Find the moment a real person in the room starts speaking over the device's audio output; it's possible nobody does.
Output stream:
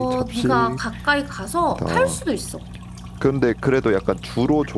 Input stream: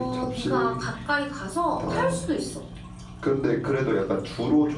none

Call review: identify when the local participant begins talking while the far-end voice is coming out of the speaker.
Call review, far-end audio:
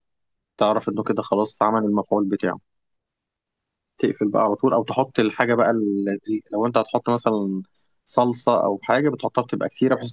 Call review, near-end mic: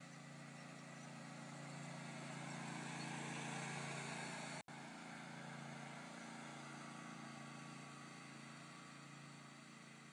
none

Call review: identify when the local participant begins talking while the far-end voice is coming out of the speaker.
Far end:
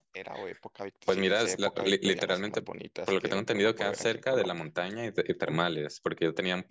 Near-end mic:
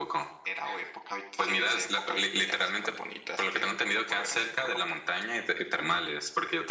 none

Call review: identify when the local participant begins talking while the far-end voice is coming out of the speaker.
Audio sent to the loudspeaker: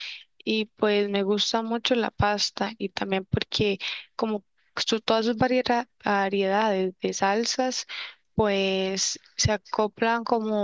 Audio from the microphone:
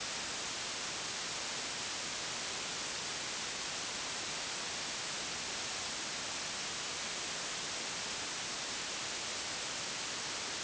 none

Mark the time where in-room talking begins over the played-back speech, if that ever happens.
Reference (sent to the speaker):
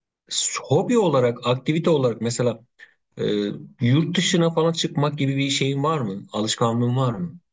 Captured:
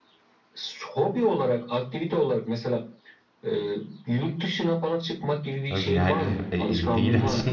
5.7 s

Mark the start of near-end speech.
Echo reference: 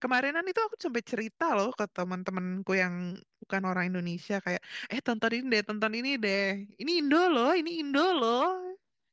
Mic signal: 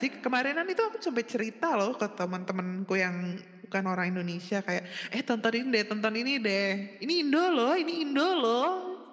none

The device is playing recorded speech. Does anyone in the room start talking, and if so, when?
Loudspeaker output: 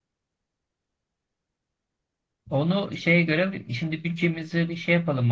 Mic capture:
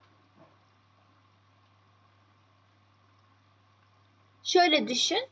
4.4 s

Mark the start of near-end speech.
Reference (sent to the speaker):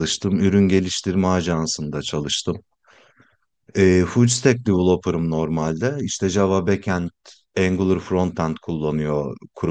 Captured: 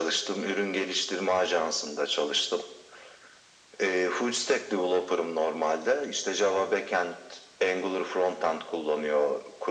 none

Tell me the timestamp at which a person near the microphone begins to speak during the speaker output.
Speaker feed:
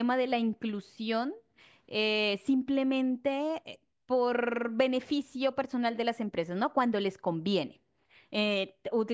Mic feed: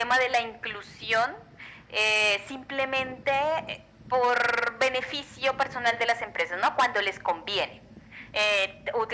none

